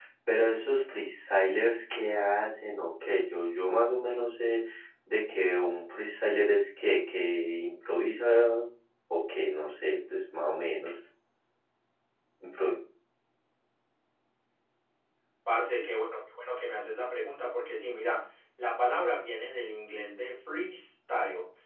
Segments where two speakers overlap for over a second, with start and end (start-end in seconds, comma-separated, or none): none